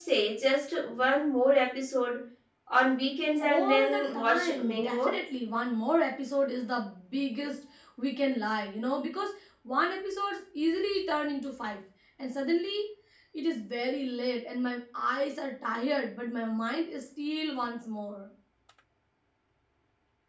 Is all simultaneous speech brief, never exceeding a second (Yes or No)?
No